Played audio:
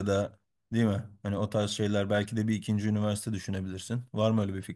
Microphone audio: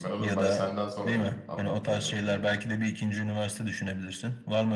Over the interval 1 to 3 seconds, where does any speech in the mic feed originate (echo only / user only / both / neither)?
both